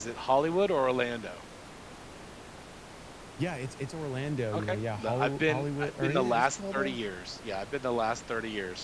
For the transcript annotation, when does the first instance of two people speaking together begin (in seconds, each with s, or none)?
4.5 s